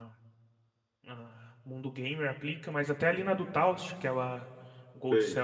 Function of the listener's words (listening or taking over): listening